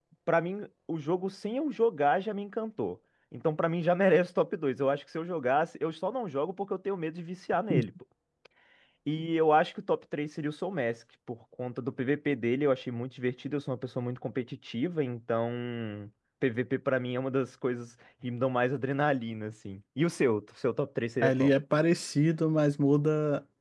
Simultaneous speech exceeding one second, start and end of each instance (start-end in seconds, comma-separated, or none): none